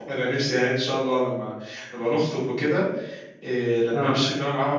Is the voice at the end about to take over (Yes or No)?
No